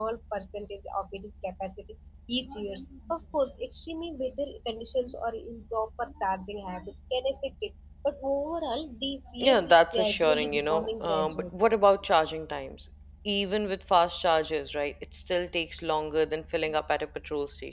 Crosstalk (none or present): present